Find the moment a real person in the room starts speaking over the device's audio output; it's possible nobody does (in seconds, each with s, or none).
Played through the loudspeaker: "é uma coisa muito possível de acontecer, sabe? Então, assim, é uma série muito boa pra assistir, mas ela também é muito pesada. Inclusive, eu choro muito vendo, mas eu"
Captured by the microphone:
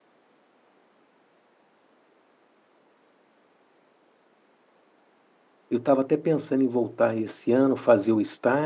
5.7 s